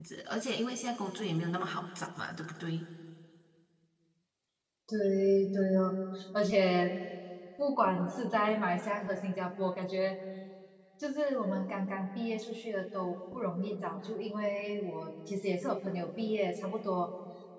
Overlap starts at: none

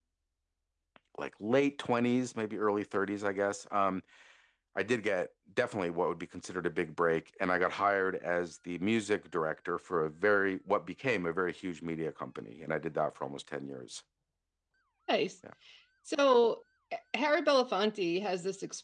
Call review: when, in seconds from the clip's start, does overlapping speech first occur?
none

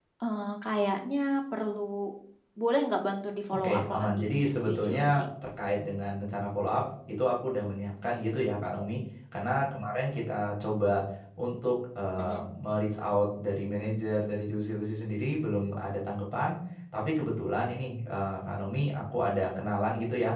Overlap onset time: 3.5 s

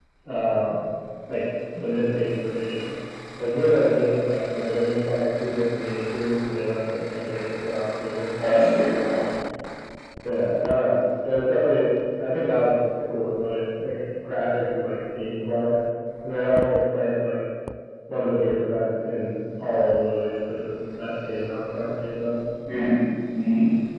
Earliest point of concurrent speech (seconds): none

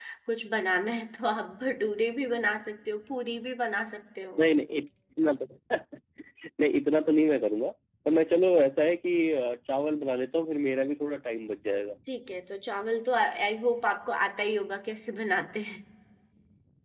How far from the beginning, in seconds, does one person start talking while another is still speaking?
none

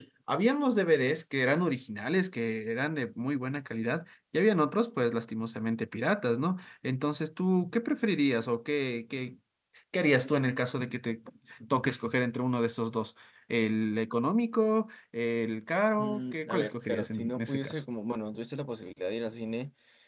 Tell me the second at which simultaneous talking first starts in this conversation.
16.0 s

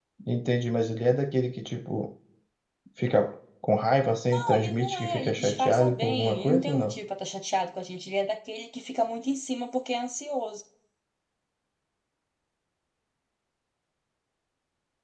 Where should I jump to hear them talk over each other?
4.3 s

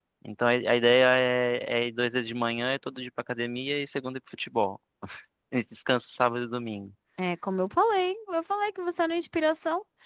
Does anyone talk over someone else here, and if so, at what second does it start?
none

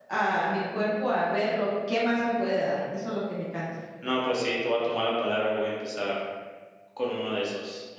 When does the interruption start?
none

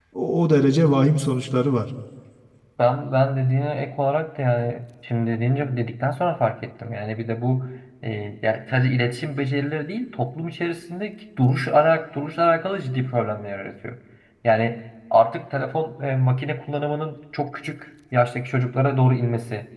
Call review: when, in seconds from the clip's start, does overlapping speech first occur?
none

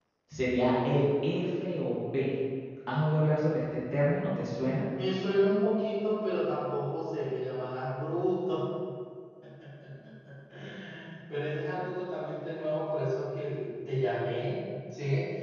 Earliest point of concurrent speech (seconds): none

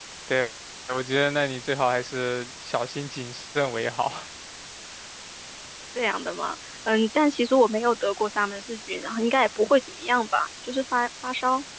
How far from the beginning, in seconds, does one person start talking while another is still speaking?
none

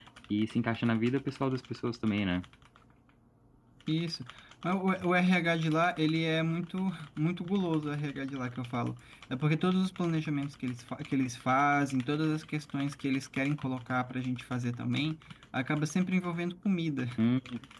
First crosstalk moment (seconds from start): none

